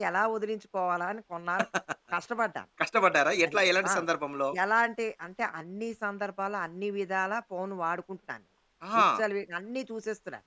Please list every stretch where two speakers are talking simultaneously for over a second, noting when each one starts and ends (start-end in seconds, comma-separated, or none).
none